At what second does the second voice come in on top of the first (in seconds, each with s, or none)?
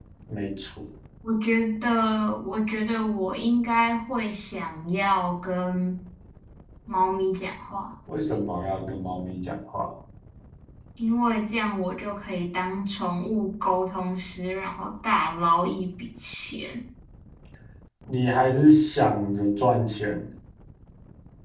none